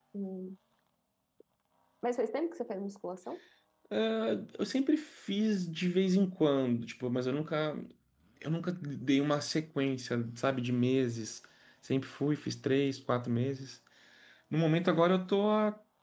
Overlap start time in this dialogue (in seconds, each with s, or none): none